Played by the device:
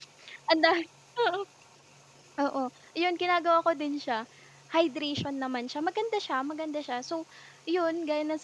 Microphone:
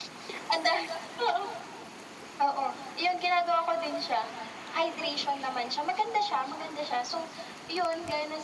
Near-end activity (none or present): none